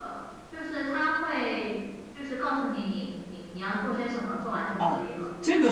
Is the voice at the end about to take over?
Yes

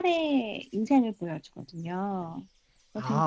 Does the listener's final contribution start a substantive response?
Yes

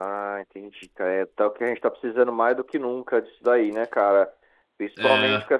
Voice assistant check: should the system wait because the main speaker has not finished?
Yes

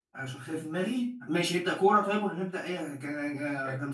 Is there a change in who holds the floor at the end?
Yes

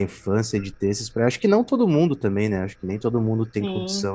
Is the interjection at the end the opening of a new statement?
No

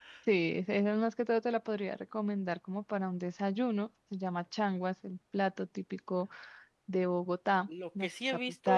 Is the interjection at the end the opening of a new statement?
Yes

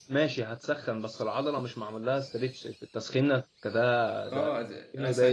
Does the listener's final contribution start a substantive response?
Yes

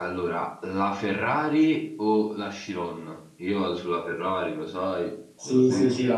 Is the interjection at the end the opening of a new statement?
Yes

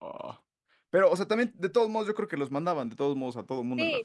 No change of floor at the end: No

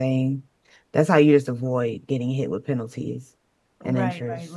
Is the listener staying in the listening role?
No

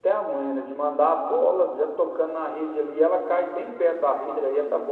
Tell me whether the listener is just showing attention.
Yes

